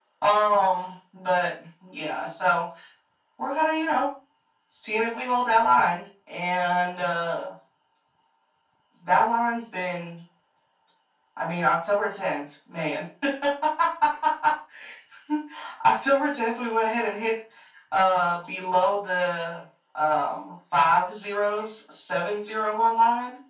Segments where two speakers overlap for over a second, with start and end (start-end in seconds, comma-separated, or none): none